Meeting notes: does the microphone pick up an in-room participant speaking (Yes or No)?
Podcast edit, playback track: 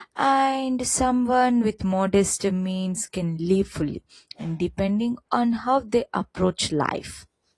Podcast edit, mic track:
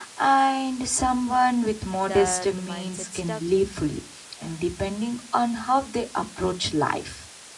Yes